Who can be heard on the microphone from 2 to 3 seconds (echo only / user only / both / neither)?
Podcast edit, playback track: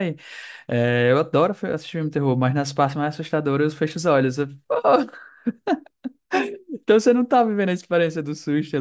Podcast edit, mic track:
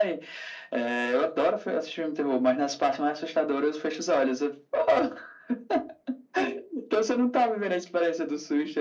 echo only